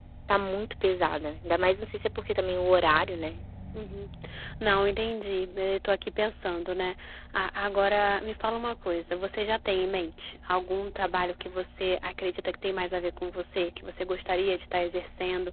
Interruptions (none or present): none